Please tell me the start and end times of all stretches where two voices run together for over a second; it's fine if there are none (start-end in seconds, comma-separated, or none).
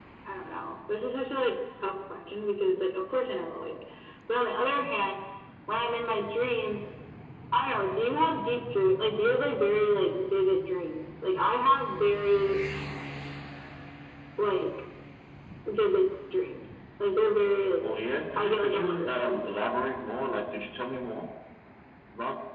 18.4-19.6